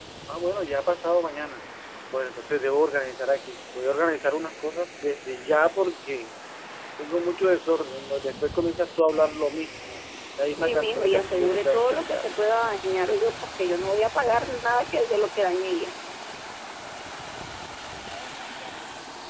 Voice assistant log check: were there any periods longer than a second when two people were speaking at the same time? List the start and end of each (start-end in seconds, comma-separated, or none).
10.6-12.2